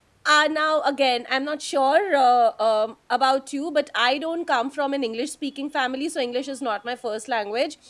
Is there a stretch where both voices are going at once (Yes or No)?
No